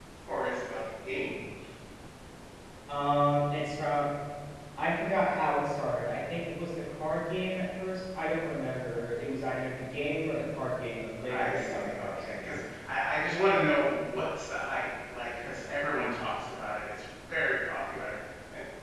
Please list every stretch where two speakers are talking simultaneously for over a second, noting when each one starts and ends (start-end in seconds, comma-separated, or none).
11.3-12.6